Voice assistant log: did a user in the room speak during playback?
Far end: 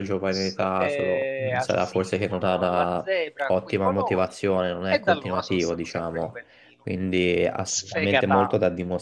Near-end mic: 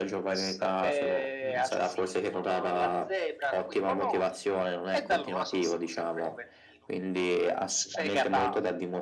No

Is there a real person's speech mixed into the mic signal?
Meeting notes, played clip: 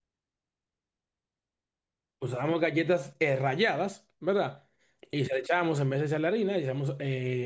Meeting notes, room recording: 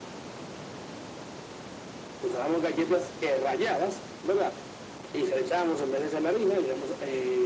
No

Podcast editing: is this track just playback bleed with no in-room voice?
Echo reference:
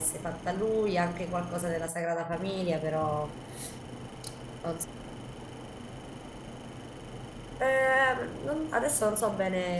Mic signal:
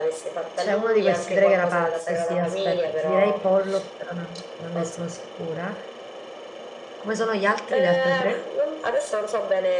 No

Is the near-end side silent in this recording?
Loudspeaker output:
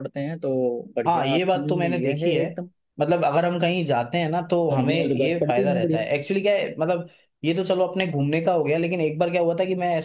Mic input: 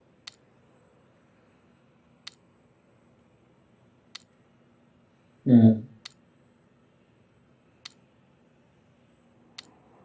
No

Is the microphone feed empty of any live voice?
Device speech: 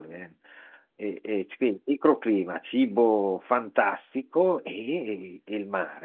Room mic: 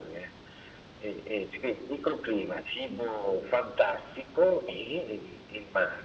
Yes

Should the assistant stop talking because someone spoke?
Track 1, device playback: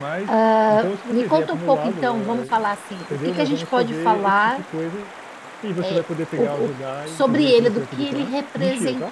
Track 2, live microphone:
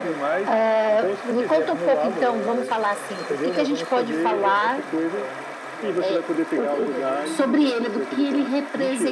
Yes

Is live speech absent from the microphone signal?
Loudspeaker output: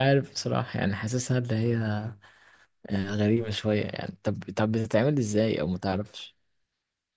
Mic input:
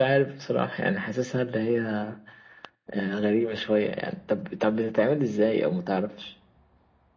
Yes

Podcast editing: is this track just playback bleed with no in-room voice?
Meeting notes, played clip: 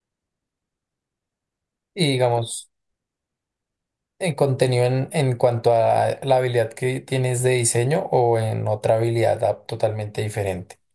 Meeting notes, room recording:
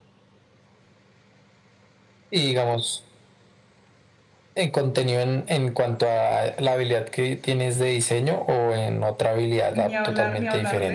No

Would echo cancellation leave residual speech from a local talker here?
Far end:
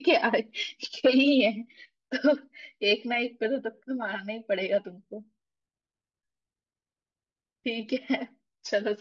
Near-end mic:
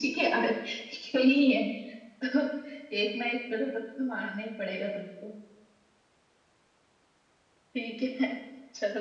No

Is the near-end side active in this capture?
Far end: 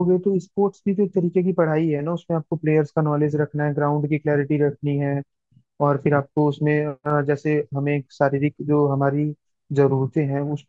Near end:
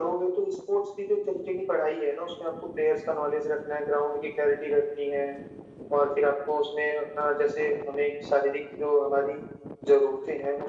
No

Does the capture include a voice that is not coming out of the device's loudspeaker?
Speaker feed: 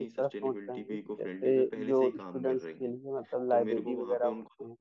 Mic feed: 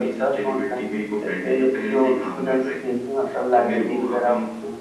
No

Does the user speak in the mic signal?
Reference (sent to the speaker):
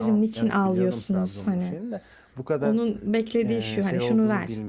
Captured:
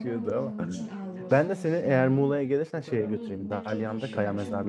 Yes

